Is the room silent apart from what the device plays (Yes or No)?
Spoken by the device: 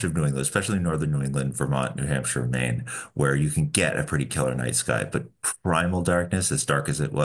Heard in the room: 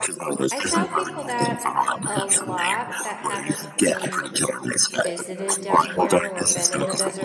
No